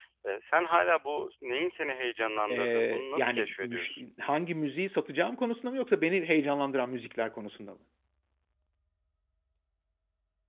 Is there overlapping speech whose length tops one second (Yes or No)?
Yes